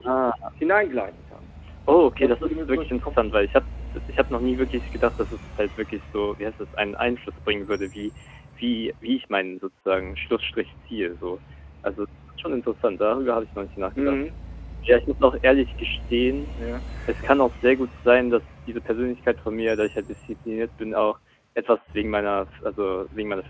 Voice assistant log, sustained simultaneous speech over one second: present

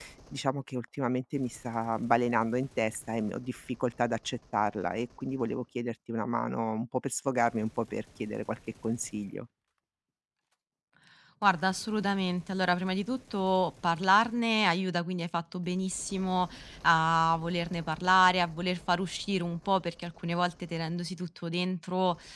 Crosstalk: none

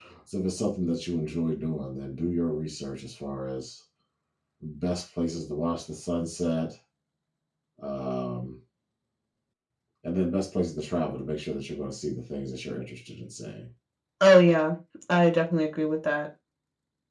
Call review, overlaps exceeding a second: none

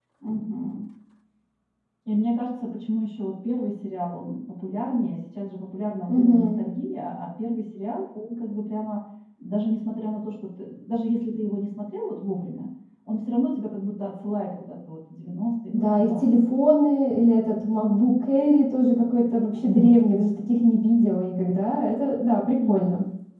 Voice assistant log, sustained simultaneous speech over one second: none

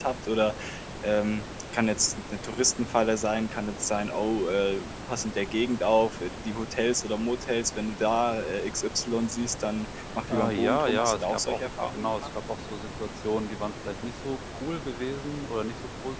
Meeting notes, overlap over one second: present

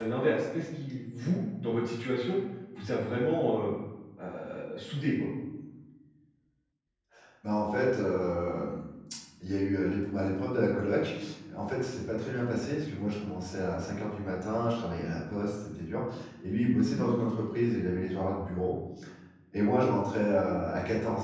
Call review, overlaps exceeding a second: none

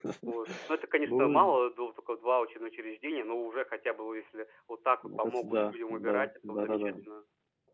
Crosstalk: present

